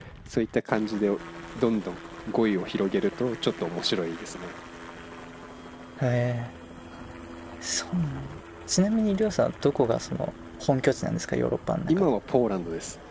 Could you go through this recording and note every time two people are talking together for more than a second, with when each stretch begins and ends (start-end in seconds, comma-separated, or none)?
none